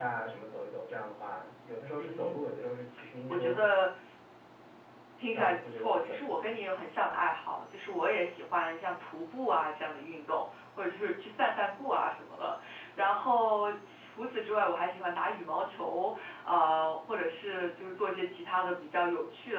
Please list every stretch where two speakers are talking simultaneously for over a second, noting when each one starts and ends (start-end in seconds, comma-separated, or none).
5.3-6.6